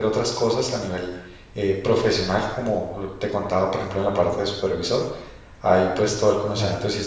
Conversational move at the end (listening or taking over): listening